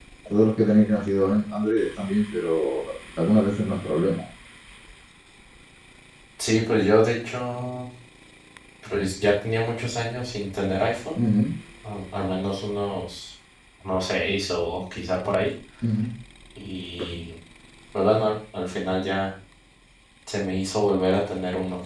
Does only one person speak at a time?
Yes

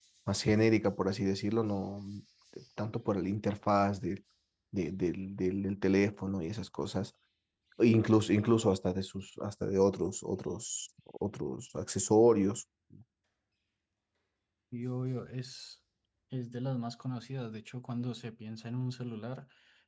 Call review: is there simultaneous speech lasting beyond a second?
No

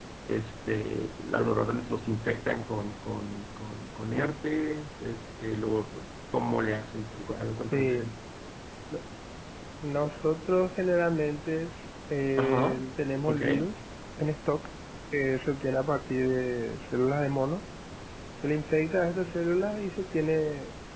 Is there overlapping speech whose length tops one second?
No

